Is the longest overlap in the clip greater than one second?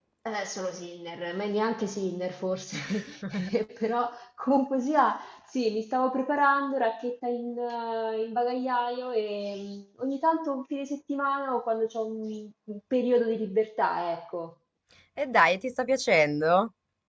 No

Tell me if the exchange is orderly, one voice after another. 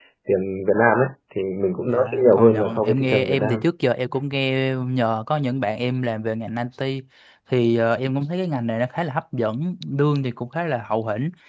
No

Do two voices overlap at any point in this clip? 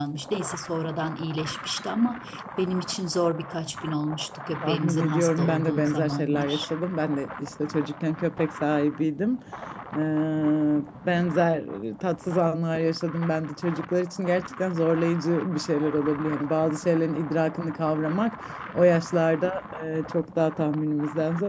Yes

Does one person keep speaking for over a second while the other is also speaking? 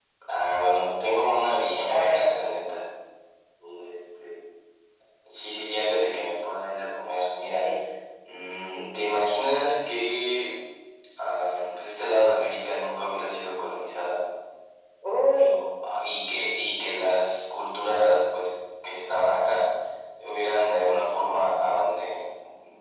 No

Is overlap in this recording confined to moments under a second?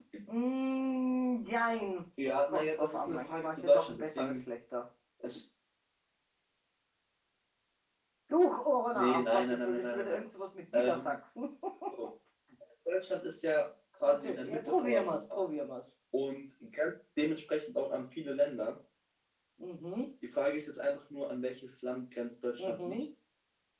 No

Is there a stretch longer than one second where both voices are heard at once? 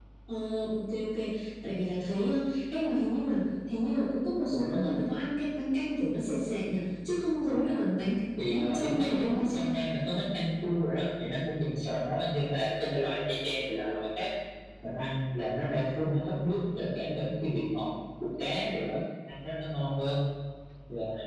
Yes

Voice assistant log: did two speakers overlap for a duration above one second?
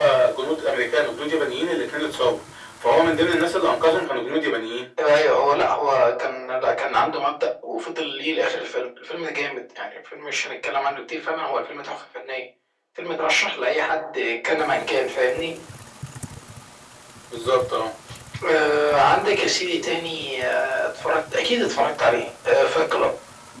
No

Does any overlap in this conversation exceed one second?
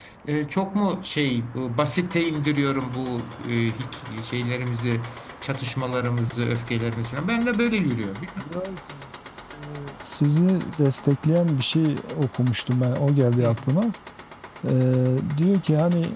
No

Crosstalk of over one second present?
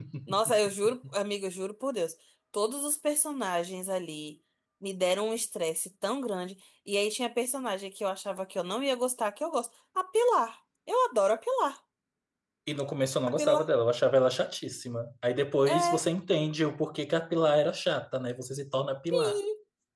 No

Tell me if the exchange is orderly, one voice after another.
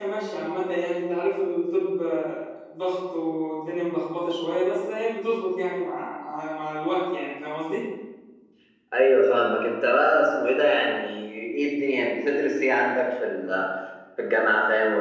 Yes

